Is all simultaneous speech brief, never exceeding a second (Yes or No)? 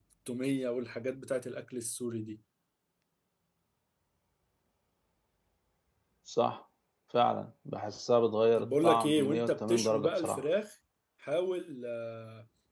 No